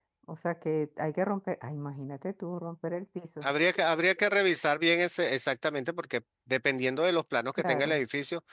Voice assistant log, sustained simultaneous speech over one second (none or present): none